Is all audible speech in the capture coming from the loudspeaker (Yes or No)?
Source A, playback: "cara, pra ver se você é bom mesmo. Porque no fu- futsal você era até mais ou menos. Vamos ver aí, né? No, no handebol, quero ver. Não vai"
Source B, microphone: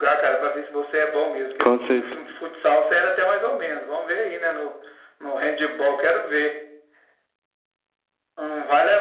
No